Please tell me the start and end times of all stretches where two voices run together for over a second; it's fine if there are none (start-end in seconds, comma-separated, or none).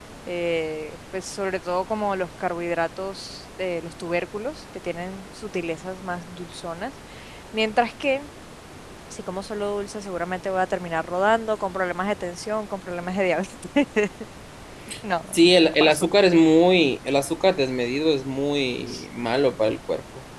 none